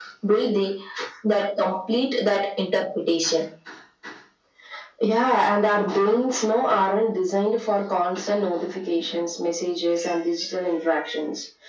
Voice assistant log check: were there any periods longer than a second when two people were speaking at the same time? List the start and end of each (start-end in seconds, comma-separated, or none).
none